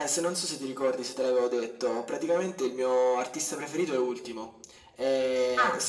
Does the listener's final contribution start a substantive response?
No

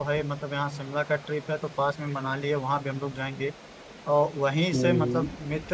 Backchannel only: Yes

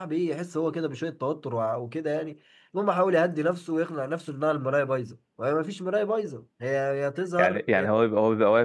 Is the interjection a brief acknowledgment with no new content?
No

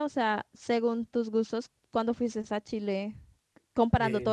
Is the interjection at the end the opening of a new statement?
No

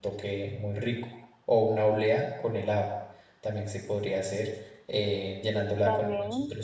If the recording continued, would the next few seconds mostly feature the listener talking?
No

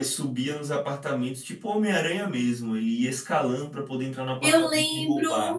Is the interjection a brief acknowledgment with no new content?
No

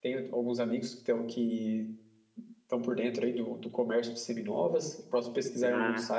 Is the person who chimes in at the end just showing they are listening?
Yes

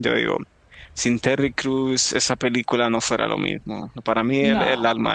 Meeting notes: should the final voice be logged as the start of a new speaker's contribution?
No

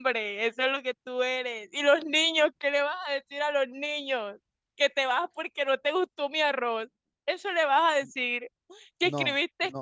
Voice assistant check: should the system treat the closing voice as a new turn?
No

